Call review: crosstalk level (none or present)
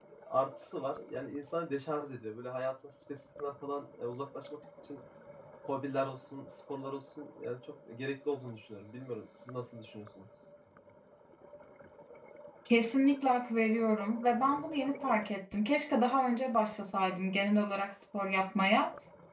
none